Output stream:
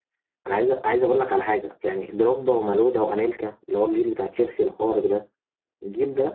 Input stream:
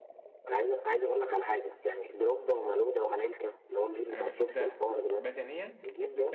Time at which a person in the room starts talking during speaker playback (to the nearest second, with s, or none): 4 s